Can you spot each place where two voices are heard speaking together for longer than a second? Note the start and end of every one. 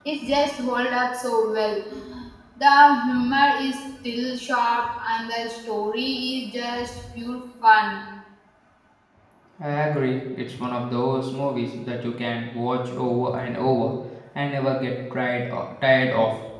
none

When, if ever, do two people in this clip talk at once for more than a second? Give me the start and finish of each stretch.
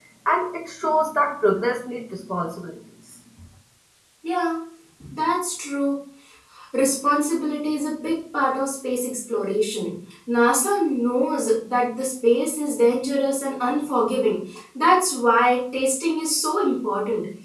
none

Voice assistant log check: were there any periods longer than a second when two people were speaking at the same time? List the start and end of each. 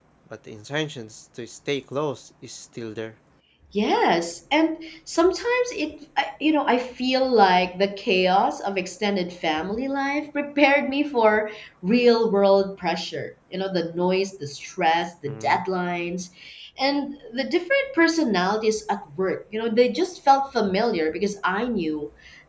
none

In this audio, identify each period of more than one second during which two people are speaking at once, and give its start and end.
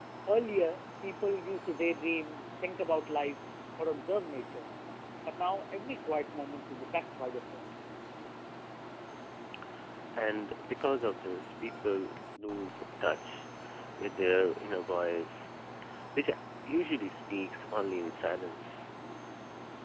none

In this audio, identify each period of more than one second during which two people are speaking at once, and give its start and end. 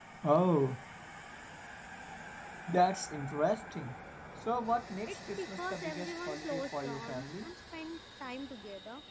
5.1-7.5

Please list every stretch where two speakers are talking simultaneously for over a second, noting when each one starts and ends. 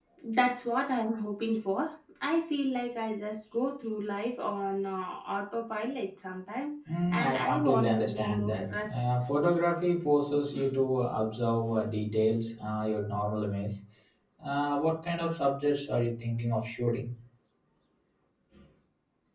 7.1-9.0

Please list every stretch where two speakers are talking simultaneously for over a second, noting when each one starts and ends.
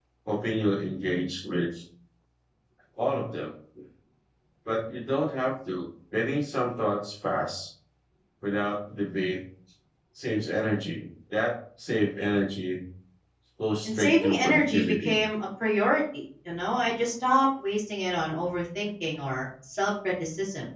13.8-15.2

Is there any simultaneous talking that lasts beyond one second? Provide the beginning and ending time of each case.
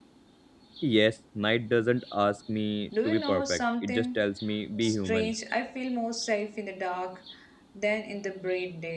3.0-4.3

